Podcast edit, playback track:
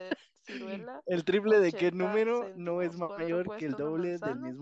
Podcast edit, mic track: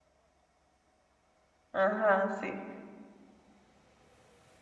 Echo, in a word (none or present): none